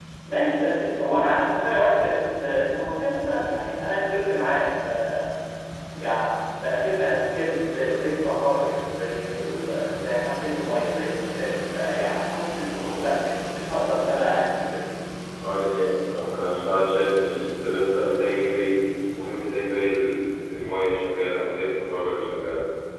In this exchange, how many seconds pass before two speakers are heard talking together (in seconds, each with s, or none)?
none